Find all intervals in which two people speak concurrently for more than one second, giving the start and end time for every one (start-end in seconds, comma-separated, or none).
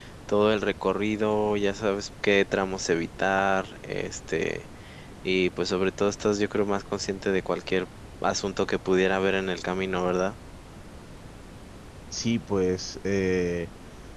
none